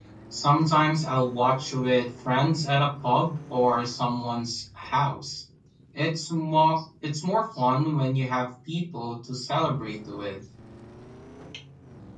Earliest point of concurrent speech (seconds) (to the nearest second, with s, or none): none